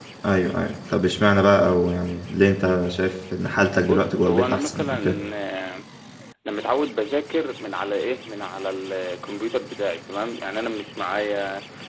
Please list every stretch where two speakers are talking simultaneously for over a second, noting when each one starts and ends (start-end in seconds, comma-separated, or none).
3.8-5.0